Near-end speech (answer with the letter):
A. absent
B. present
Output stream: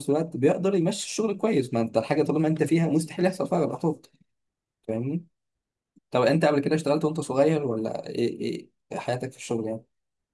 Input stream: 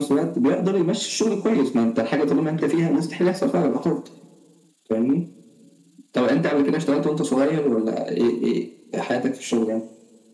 A